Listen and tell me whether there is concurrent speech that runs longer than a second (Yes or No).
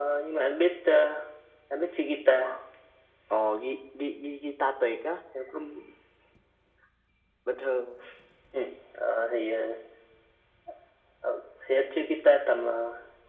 No